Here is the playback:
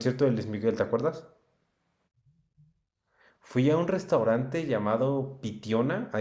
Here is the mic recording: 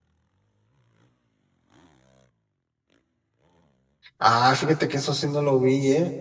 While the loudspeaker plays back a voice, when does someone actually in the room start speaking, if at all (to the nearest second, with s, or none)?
4 s